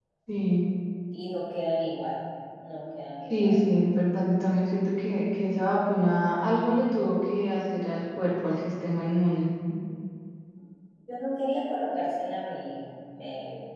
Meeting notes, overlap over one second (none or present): none